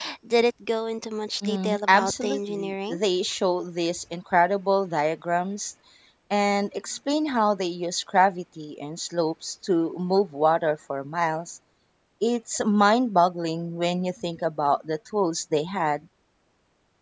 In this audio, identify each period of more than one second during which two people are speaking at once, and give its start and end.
1.4-3.0

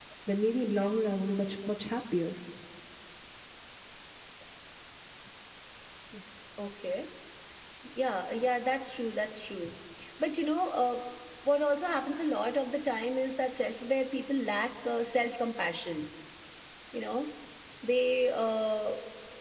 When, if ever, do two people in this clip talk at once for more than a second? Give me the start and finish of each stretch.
none

